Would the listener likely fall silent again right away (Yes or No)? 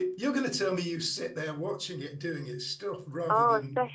No